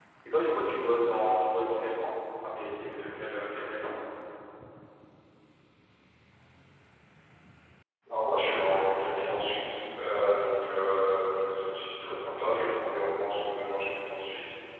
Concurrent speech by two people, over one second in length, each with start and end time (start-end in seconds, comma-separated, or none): none